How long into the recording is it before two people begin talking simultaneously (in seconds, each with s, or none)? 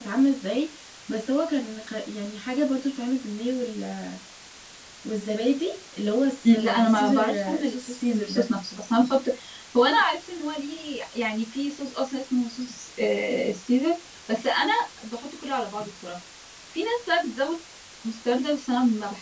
6.4 s